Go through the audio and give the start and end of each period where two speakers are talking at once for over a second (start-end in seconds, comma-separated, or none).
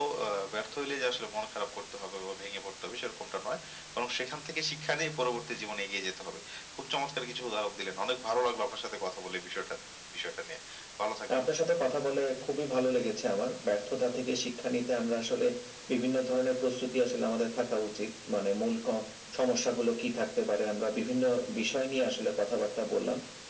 none